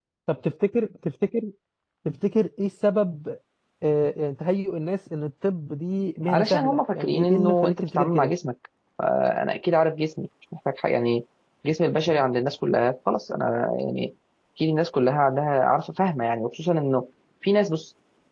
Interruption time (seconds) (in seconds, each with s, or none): 6.3 s